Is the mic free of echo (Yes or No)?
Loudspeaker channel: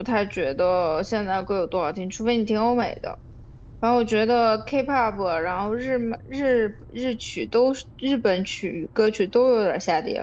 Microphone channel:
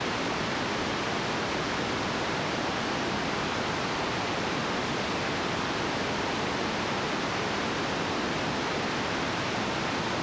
Yes